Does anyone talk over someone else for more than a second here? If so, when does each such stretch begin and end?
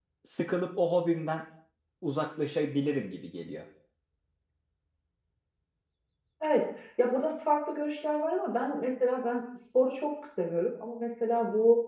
none

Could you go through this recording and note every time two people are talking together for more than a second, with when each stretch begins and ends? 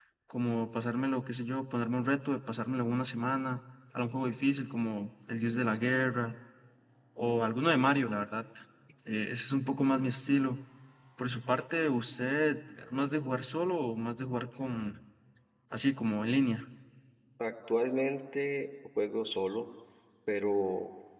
none

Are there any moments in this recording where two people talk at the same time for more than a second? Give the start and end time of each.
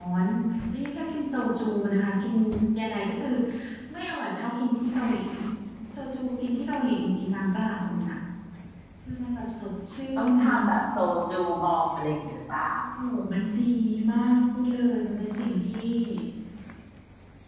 none

